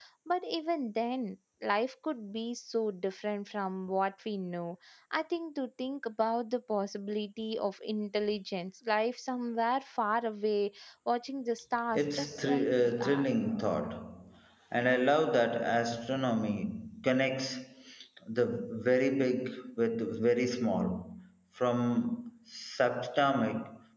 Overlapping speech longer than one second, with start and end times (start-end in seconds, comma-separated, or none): 11.9-13.3